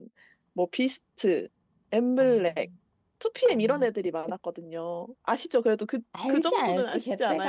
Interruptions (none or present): present